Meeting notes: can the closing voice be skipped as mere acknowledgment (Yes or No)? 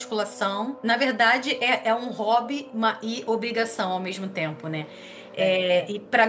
Yes